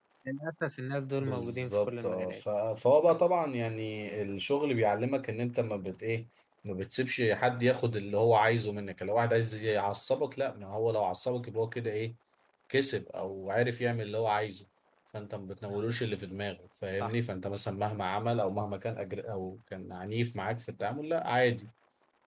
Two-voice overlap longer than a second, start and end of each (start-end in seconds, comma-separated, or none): 1.2-2.4